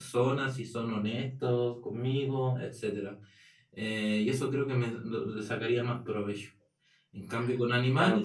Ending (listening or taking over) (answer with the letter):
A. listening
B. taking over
A